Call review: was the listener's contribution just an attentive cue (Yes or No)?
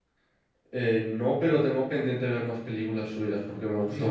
No